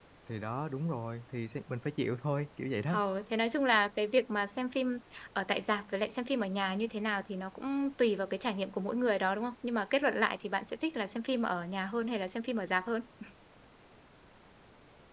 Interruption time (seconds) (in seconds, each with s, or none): none